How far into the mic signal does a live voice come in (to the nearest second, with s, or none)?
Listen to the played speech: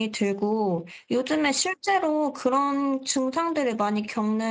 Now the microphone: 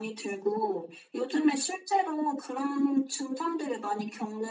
none